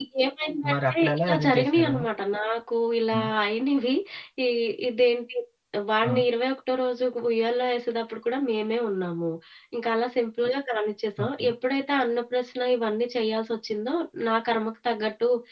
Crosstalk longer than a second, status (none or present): present